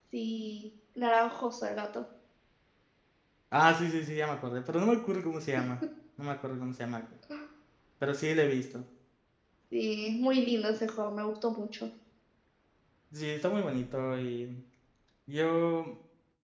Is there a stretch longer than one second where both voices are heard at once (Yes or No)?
No